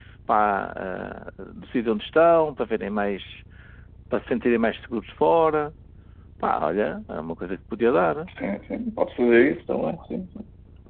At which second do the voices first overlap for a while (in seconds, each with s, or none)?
none